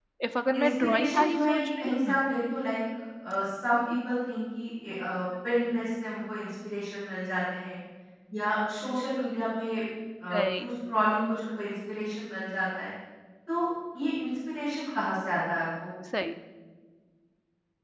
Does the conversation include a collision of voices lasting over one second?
Yes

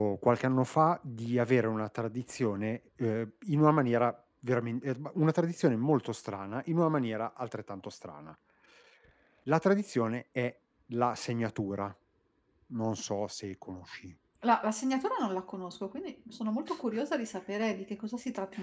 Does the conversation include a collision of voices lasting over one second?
No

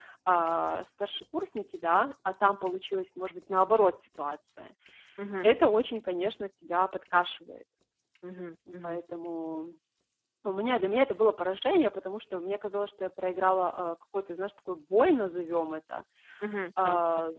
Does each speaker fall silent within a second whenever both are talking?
Yes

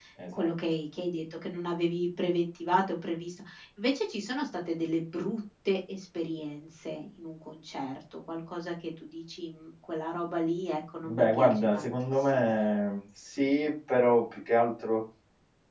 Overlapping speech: Yes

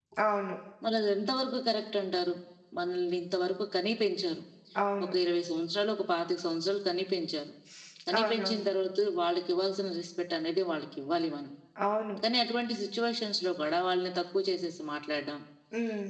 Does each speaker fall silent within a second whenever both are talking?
Yes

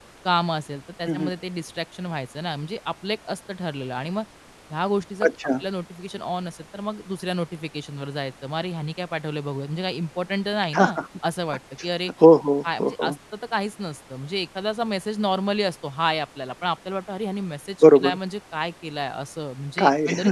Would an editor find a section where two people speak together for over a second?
No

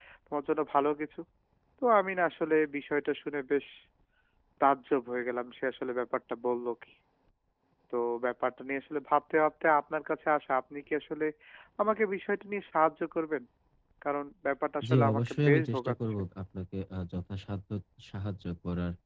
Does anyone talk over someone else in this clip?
Yes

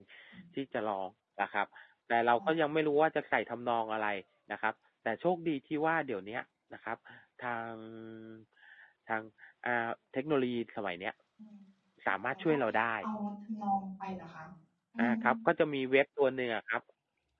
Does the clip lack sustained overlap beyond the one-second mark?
Yes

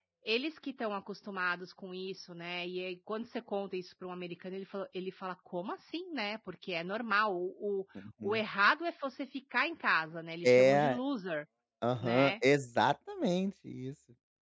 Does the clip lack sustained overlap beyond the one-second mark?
Yes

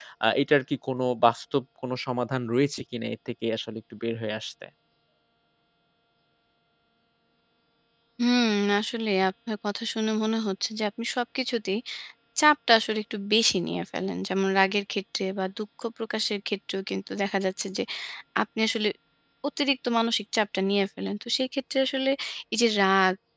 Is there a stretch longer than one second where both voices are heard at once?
No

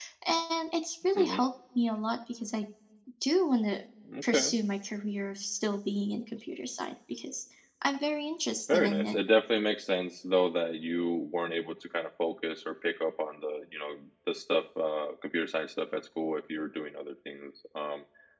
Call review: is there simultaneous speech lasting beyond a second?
No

